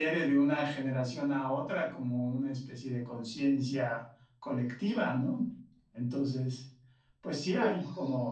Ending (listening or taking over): listening